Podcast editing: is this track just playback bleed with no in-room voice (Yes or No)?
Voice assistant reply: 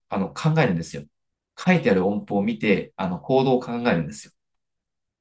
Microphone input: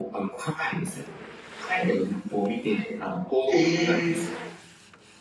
No